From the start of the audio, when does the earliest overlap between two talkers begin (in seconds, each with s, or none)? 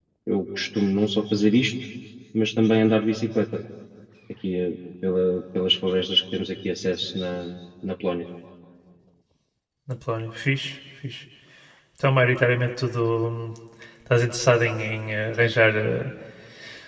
none